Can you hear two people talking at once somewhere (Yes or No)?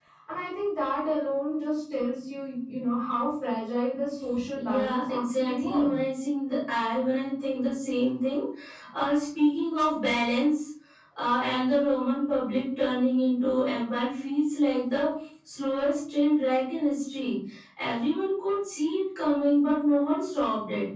Yes